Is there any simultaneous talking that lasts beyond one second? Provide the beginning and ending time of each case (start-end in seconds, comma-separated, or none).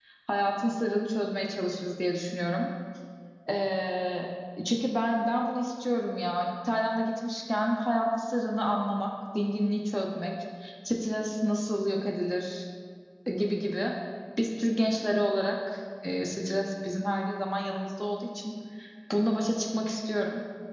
none